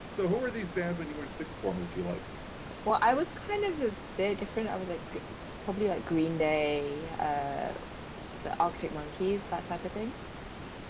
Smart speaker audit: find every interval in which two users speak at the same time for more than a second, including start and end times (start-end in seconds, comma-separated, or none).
none